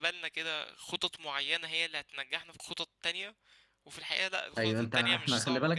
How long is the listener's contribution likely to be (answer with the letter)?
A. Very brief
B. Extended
B